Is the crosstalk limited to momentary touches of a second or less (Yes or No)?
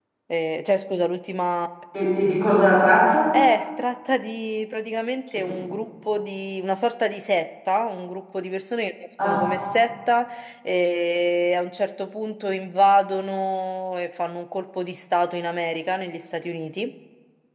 Yes